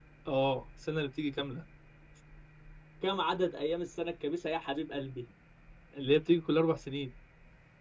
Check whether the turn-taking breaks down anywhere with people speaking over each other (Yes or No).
No